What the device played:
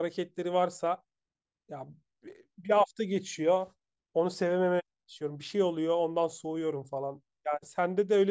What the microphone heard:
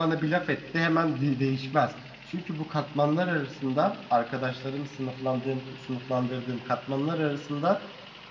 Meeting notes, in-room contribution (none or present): present